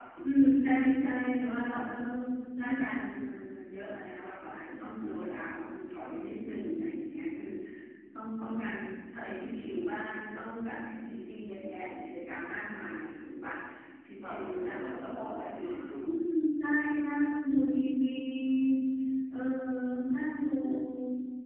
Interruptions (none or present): present